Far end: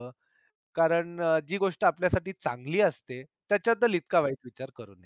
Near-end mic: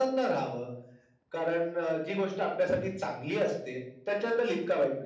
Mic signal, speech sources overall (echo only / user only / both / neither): echo only